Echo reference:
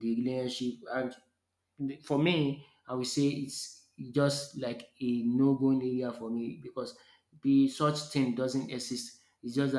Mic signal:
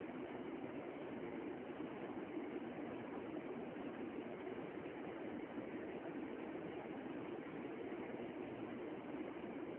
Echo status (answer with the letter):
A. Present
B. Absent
B